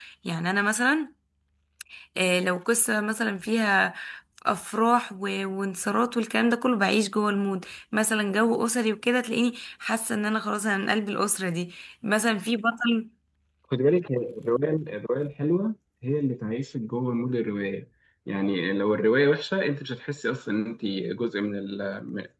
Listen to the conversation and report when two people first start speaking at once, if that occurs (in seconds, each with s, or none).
none